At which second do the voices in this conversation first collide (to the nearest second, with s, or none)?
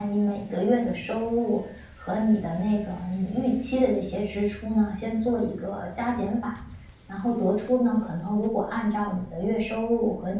none